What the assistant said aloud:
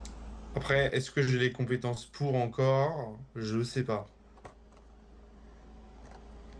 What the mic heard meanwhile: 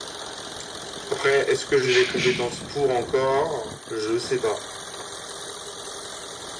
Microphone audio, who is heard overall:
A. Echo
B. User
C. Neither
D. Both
D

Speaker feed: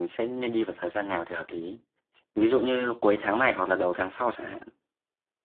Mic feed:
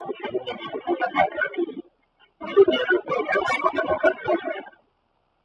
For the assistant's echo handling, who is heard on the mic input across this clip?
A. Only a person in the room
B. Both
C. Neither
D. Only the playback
D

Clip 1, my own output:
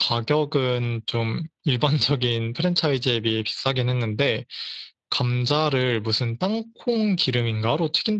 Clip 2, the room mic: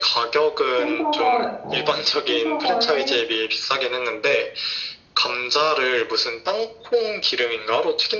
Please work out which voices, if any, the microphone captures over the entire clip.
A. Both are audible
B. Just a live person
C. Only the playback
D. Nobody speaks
A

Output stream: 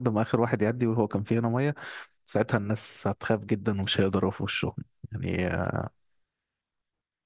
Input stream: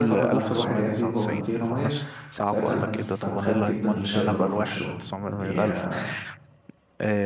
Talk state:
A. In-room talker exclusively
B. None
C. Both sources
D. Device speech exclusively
C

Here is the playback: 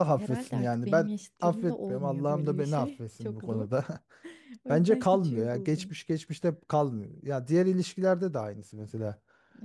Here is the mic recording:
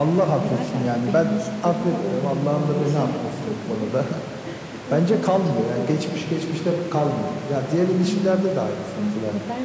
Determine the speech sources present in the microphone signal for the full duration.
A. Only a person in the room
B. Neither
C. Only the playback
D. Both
D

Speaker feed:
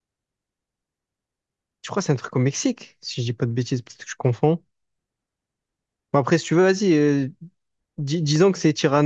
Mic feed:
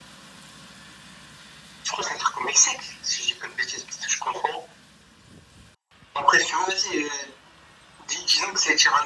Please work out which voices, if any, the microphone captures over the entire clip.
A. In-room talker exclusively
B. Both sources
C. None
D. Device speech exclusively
D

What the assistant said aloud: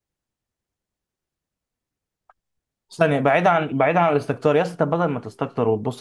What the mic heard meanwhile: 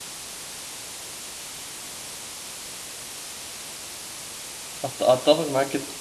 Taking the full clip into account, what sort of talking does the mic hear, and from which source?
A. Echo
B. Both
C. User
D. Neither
C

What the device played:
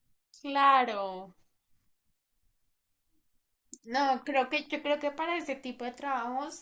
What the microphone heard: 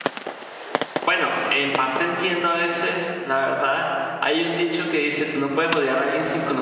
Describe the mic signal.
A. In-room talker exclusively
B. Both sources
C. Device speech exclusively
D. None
A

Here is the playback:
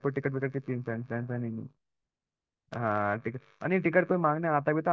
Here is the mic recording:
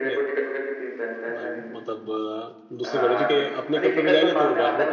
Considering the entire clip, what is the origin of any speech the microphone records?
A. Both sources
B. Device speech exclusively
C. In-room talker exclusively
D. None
A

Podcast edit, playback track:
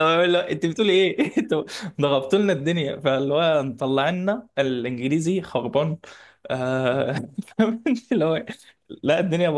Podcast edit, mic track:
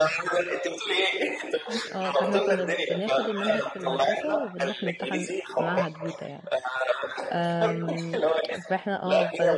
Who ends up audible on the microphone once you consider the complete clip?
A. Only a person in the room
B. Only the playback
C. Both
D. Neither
C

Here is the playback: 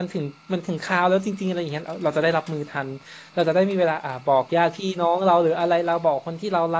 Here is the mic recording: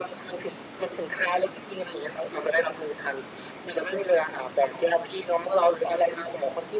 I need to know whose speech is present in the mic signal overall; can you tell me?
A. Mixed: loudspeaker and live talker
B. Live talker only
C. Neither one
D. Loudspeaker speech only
D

